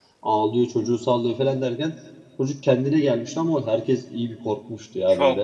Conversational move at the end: taking over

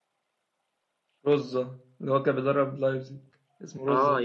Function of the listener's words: taking over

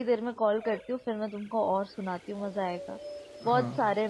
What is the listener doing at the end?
taking over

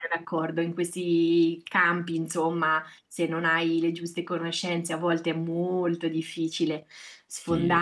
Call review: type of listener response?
listening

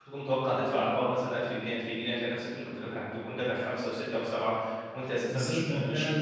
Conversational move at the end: taking over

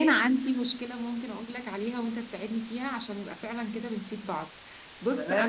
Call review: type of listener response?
taking over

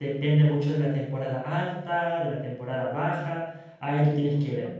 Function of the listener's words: listening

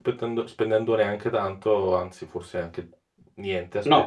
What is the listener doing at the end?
taking over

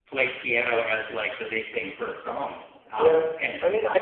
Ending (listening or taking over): taking over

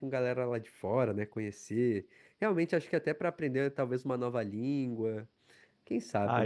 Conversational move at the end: taking over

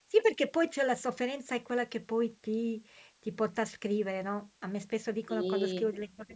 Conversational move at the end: listening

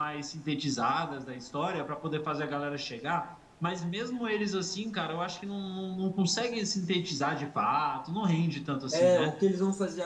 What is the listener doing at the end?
taking over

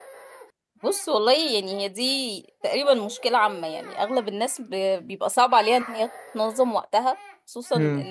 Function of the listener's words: listening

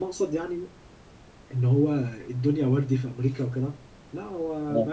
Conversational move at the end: listening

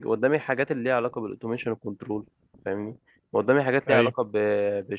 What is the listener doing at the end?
listening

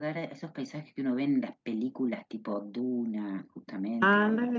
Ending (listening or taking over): taking over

